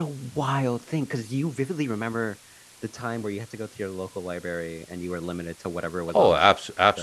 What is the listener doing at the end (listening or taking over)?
taking over